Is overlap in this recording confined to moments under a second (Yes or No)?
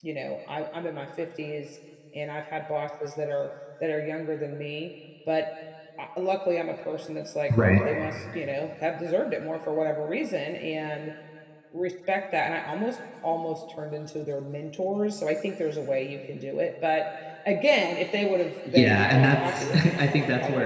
No